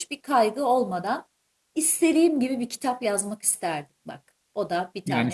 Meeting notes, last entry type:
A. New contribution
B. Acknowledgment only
A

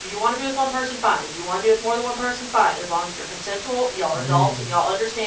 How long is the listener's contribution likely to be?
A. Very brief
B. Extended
A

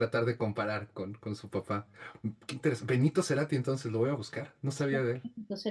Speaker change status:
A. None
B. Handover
B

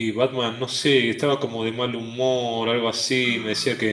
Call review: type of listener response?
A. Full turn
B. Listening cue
B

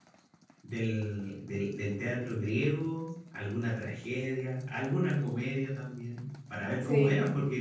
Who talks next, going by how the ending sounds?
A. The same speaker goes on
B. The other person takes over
A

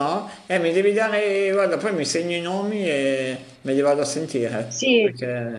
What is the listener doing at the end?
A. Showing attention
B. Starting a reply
B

